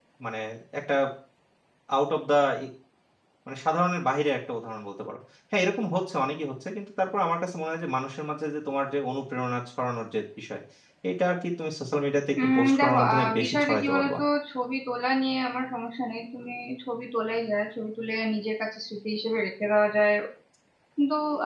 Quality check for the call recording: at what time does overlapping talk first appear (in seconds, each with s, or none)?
12.3 s